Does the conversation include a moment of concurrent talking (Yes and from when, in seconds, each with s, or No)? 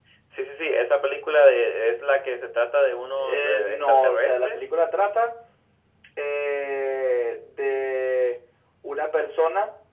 Yes, from 3.2 s